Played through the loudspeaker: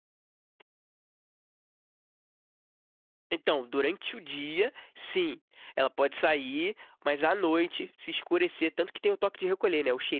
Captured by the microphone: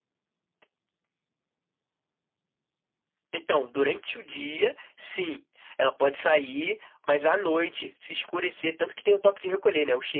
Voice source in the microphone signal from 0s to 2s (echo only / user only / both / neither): neither